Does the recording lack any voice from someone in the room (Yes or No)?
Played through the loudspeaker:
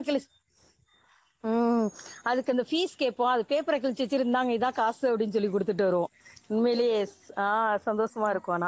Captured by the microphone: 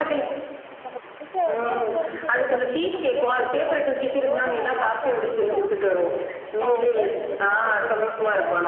No